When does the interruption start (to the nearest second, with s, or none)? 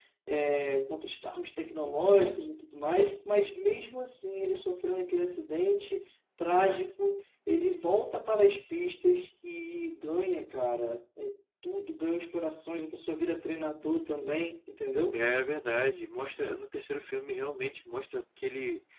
none